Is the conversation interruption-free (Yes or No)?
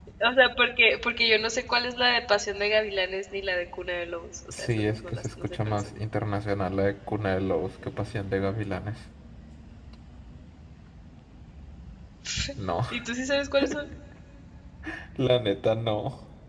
No